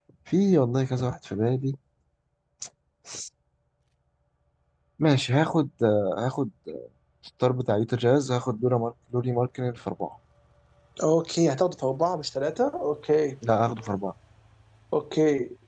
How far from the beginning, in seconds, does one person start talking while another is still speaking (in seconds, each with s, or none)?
none